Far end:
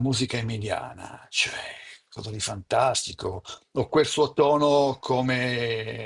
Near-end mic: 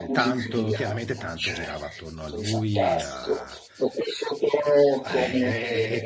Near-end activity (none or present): present